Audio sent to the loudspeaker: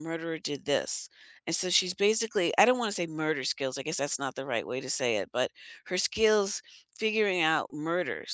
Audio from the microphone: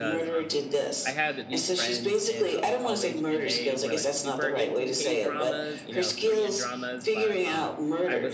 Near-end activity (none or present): present